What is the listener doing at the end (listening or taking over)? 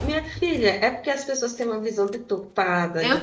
listening